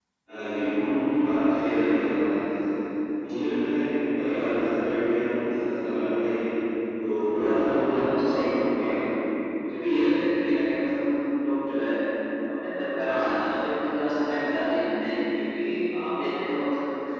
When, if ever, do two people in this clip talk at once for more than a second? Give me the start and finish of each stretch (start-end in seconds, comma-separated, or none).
7.3-8.9